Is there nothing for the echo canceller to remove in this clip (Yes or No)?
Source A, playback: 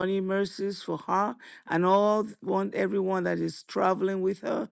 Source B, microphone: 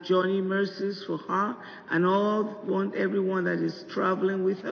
No